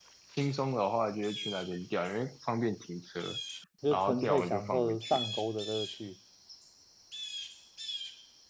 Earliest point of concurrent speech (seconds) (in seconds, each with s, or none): 3.9 s